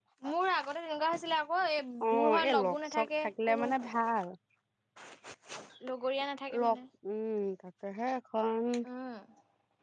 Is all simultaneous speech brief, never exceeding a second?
No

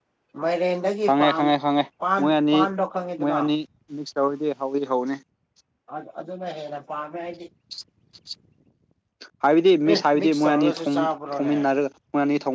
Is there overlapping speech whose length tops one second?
Yes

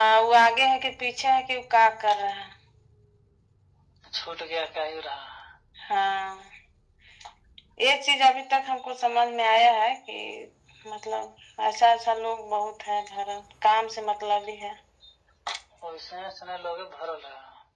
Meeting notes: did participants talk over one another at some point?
No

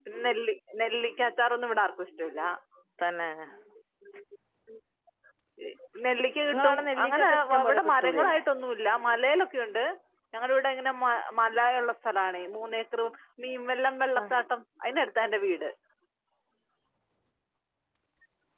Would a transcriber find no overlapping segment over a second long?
No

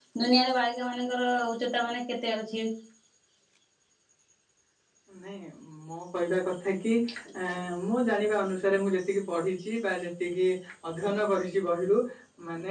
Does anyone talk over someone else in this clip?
No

